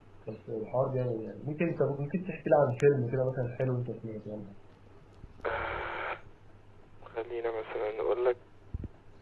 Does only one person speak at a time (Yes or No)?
Yes